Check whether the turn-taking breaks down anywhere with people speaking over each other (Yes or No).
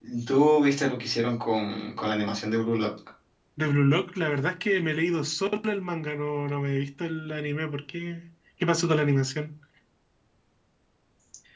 No